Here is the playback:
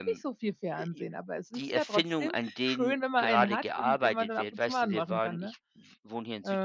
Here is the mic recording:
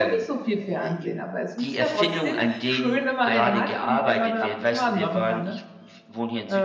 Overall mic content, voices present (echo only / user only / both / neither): echo only